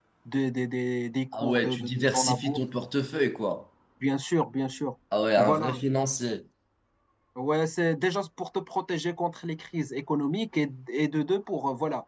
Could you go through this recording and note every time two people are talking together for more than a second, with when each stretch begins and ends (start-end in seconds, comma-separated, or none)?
1.3-2.6